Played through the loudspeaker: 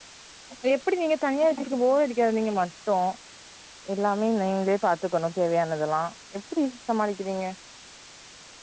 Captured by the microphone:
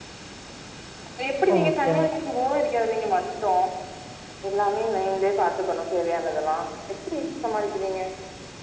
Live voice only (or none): ஓகே